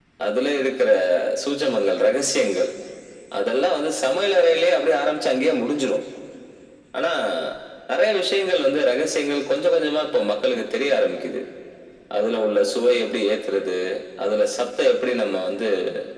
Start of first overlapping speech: none

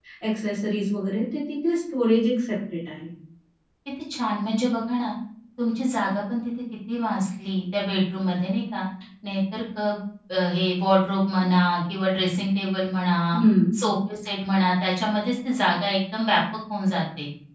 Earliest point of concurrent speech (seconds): none

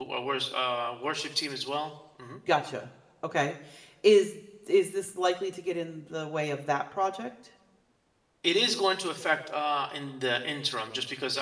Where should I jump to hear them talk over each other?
none

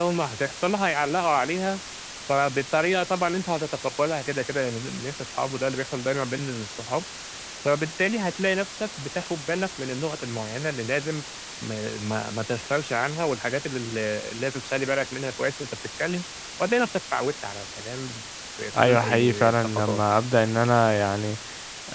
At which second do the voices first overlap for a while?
18.8 s

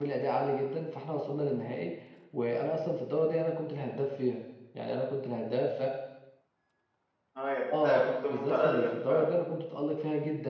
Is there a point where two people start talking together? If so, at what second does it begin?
7.8 s

